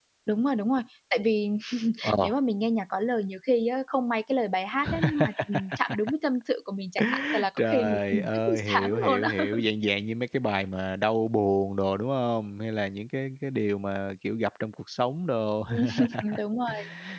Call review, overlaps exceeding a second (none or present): present